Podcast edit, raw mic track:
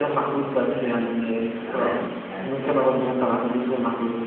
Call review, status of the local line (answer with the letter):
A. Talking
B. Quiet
A